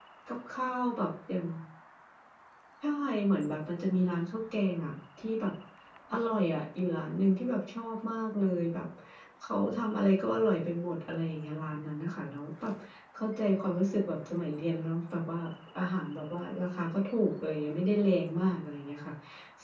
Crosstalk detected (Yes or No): No